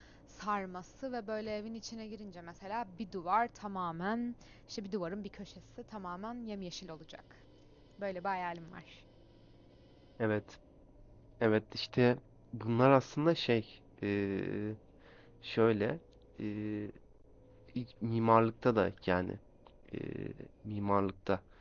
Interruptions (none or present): none